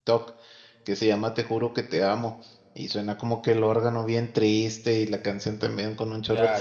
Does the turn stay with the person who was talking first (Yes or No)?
No